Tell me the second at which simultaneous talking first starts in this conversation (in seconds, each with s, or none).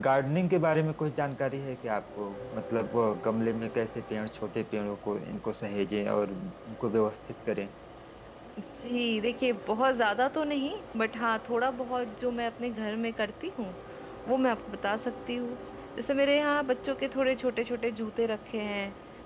none